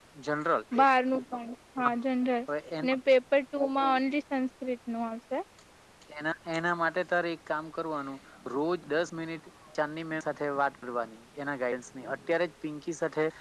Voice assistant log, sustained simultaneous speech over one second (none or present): none